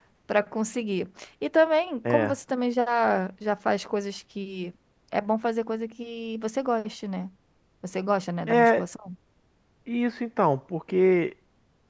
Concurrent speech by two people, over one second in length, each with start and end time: none

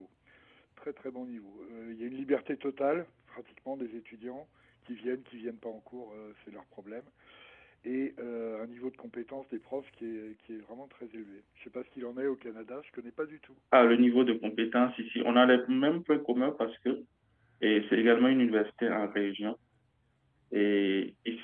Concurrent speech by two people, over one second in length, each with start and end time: none

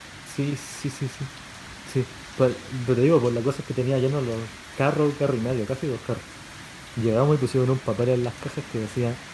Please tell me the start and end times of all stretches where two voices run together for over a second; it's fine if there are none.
none

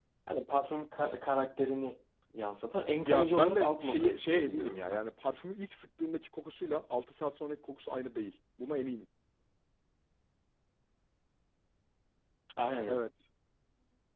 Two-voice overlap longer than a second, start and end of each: 3.0-5.0

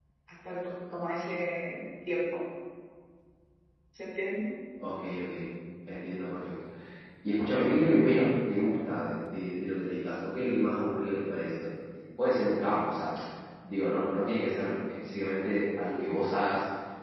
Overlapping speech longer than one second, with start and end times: none

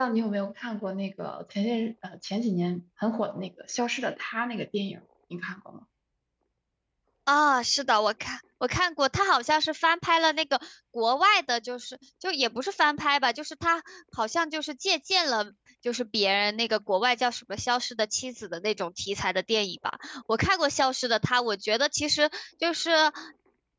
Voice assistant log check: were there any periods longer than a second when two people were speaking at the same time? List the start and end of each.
none

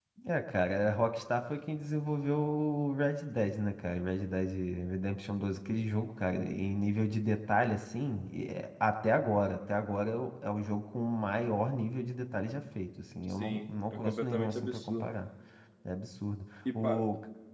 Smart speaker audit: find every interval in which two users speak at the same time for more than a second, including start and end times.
13.3-15.1

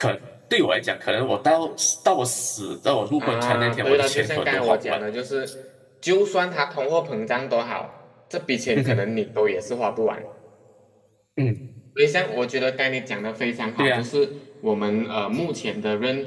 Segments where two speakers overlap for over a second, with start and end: 3.2-5.0

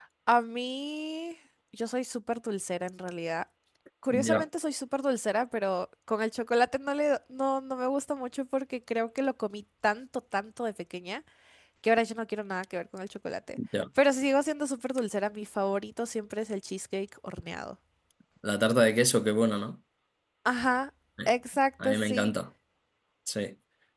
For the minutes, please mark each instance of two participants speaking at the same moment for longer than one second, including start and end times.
none

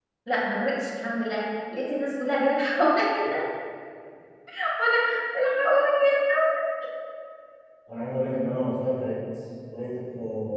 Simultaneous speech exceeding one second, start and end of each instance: none

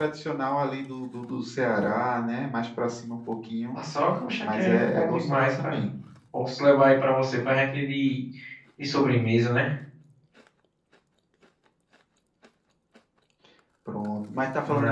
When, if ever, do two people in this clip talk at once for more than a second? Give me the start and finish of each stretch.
4.4-5.8

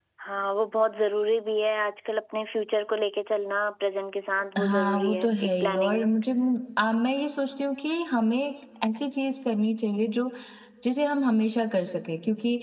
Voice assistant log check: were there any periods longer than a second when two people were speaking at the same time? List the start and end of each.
4.6-6.0

